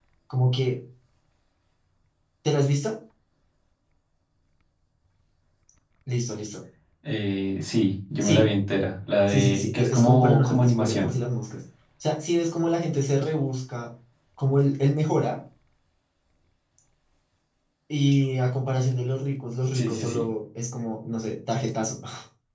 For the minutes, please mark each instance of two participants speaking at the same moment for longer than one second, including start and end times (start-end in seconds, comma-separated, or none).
9.3-11.1